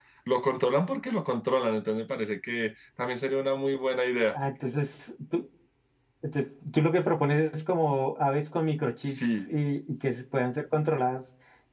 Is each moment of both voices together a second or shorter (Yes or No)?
Yes